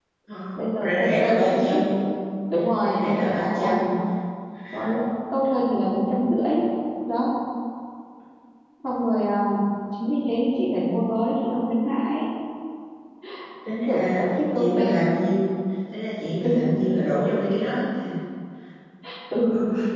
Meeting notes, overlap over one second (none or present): present